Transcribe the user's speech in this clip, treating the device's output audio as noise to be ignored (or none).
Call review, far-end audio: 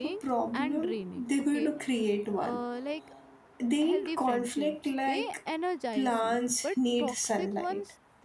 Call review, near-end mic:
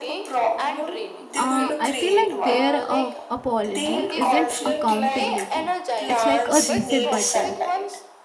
uh, I feel like their uh, apology isn't accountability. It's like a reset button,